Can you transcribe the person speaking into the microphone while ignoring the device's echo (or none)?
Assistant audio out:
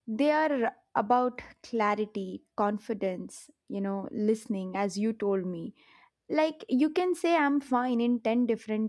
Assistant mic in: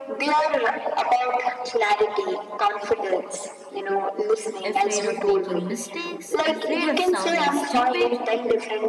afraid of making mistakes, afraid of sounding stupid,